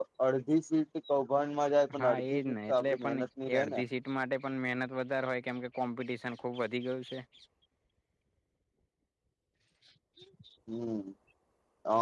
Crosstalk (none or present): present